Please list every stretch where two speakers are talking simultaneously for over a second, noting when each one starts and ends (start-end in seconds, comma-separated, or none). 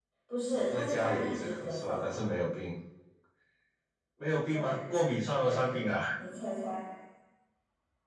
0.5-2.0